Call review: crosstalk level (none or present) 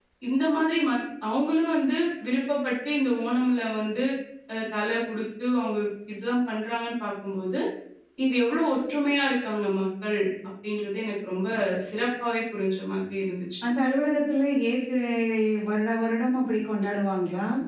none